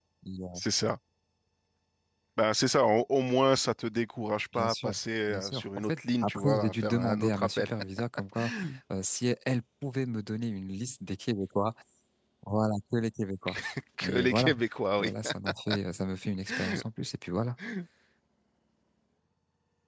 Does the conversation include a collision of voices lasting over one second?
Yes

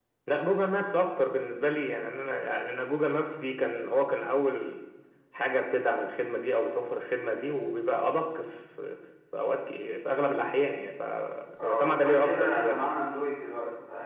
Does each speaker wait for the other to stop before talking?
No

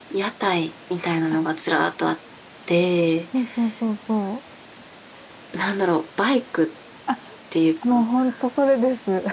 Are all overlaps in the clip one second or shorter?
Yes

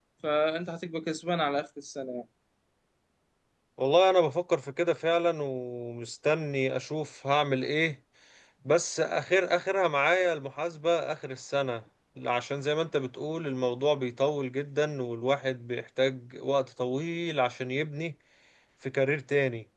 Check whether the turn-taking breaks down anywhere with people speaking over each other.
No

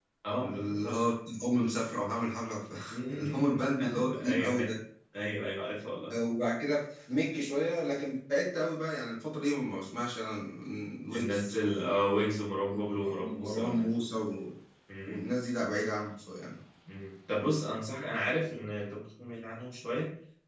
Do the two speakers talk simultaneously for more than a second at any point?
Yes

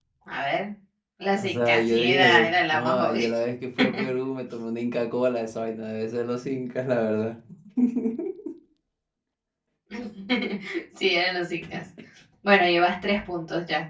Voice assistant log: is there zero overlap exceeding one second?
No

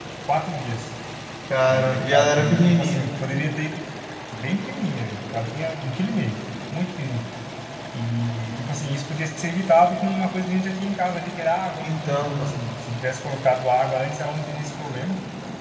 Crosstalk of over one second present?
Yes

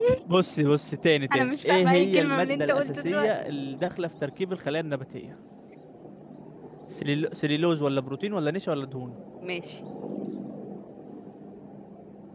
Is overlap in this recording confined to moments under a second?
No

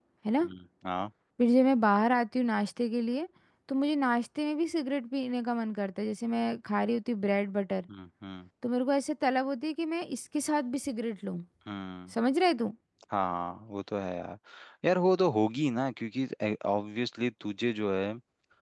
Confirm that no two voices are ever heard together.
Yes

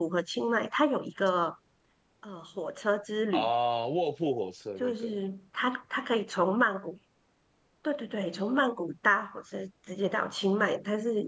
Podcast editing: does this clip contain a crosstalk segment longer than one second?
No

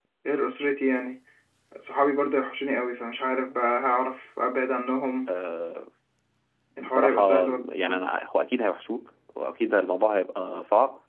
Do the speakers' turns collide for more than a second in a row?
Yes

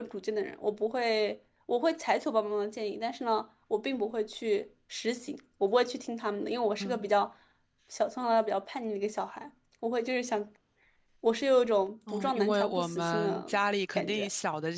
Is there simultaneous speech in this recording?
Yes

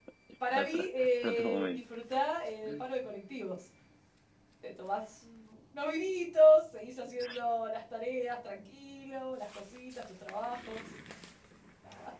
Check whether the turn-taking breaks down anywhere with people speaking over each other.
Yes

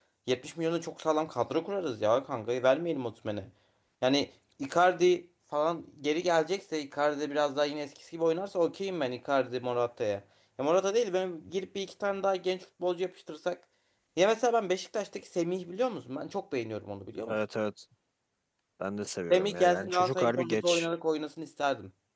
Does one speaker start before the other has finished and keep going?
Yes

